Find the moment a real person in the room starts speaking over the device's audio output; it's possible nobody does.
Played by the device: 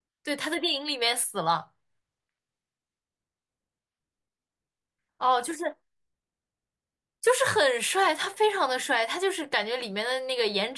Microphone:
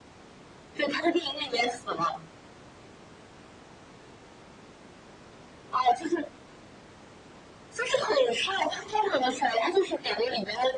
none

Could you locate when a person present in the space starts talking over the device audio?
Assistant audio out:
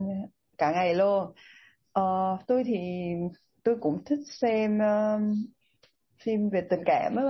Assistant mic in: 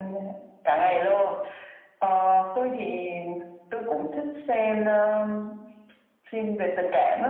none

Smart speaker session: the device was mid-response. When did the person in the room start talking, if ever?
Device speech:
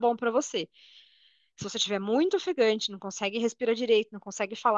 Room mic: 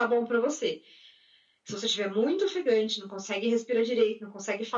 none

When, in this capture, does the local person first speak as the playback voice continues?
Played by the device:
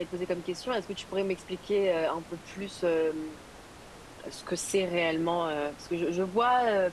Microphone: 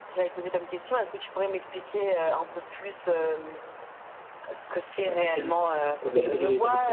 5 s

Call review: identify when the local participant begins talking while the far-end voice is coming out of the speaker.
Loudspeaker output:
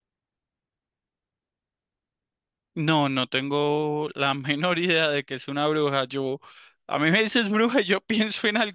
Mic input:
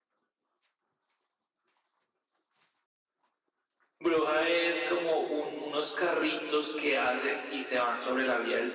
4 s

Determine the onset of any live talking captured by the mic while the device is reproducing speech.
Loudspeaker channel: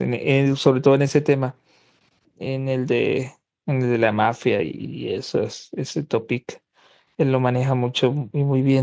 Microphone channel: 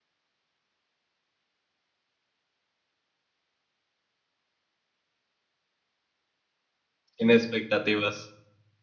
7 s

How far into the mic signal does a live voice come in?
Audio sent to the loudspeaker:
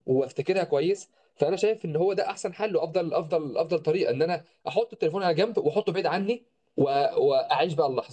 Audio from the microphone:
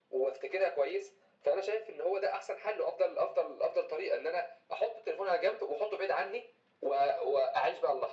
none

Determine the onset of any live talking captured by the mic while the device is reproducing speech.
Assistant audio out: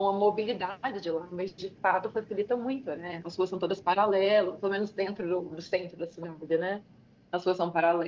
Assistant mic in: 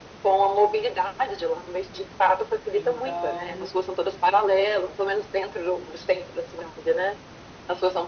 3 s

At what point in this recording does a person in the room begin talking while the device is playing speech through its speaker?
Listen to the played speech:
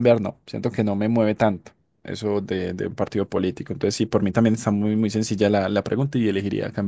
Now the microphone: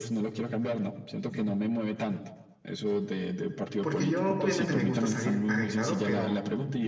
4 s

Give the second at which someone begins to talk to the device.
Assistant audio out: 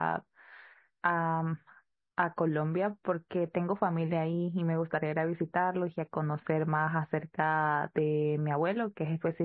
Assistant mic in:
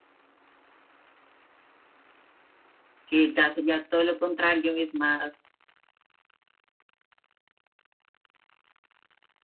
3 s

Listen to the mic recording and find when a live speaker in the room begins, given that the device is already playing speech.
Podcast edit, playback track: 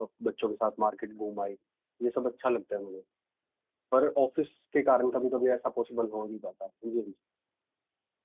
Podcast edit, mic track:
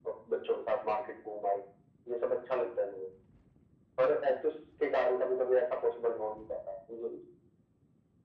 none

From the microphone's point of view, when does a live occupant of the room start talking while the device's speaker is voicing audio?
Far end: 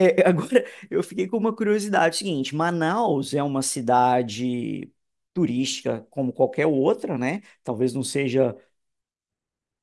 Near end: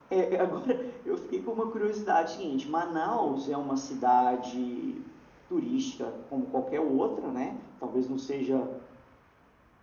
none

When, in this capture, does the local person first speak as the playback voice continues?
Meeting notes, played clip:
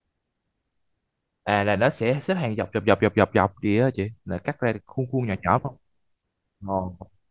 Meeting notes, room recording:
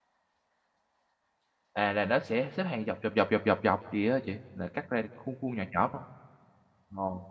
none

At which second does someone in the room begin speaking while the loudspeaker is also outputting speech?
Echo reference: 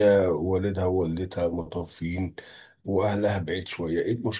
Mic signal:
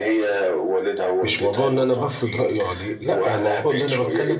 1 s

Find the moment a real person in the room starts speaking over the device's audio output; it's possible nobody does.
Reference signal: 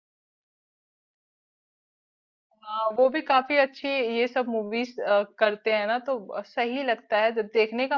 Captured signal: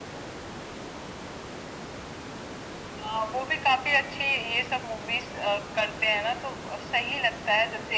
none

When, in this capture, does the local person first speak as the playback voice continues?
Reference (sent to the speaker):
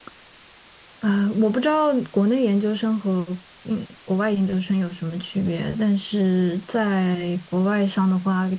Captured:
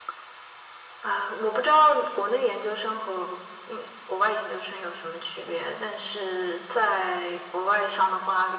none

